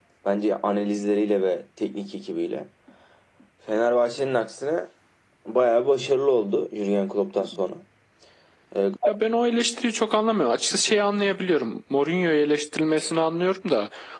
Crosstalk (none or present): none